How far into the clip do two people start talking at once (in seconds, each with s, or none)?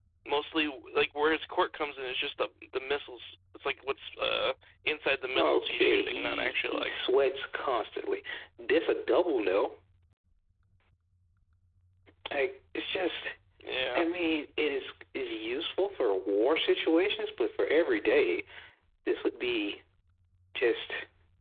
5.3 s